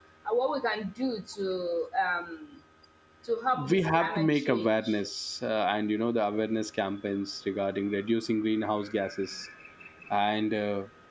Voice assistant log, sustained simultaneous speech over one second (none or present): present